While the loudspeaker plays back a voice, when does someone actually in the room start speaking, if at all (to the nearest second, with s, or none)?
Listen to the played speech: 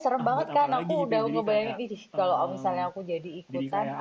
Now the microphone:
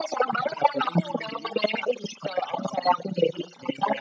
none